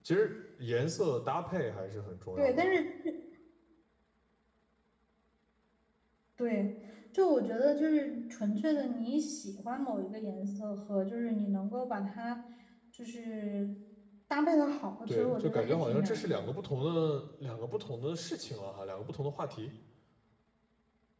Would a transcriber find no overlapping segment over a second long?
No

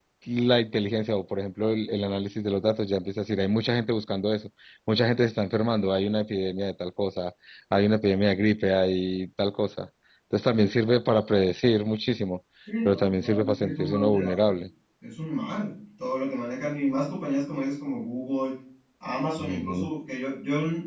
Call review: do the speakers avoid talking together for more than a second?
No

